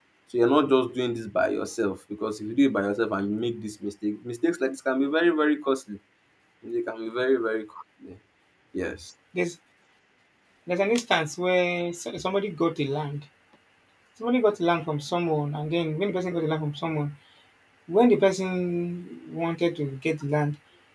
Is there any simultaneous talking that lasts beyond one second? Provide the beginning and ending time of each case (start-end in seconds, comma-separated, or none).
none